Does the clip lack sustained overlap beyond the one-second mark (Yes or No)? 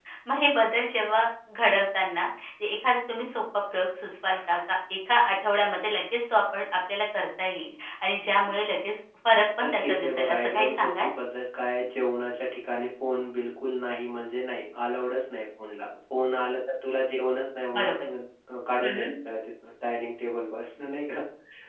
No